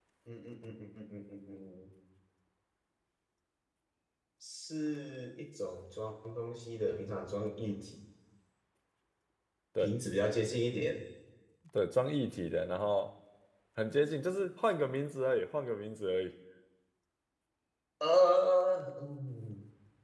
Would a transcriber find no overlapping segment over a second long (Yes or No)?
Yes